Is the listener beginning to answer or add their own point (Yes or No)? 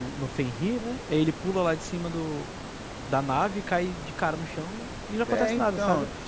Yes